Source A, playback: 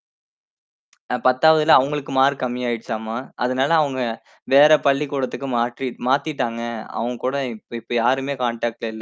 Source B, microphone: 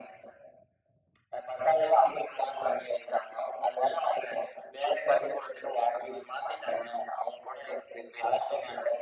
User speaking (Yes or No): No